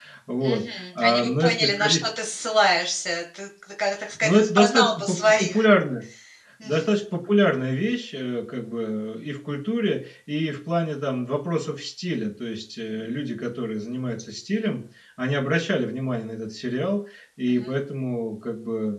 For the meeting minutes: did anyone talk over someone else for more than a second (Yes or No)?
Yes